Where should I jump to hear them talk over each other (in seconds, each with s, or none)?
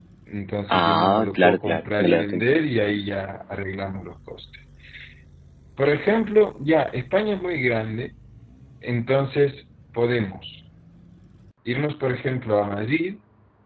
0.7 s